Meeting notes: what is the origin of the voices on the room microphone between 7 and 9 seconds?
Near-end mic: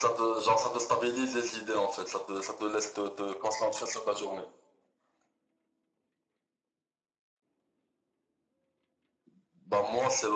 neither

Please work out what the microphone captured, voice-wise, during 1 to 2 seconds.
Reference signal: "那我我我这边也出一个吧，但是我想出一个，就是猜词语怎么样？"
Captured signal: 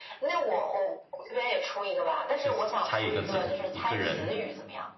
echo only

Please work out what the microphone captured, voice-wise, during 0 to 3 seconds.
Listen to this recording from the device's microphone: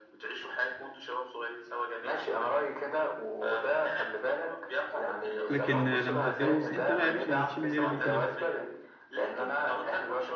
echo only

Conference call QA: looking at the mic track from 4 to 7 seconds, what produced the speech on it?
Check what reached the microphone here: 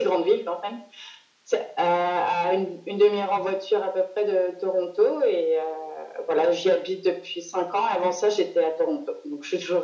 echo only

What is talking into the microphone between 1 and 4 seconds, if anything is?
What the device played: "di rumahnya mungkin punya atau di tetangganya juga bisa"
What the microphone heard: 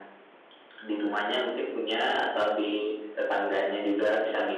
echo only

